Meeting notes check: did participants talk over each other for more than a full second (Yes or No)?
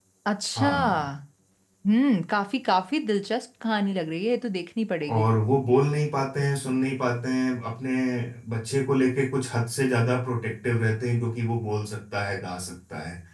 No